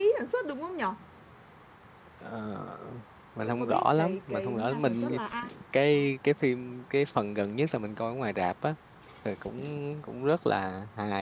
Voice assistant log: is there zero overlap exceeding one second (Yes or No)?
No